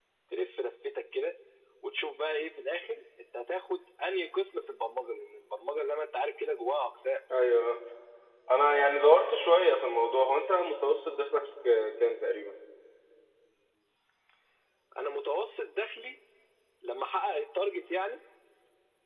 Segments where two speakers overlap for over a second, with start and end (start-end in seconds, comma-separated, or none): none